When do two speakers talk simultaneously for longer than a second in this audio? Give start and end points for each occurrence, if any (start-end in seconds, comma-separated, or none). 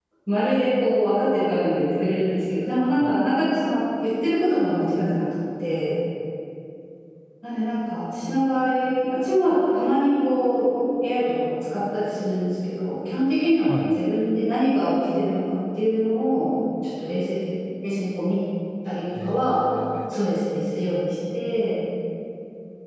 none